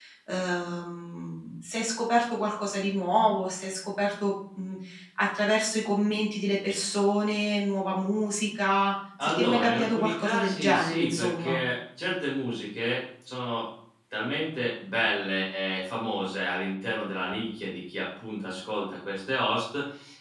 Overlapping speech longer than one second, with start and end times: 9.2-11.6

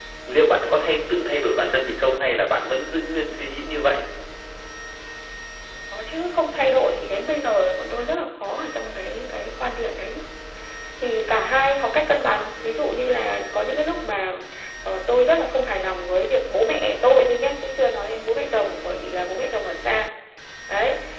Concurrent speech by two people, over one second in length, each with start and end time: none

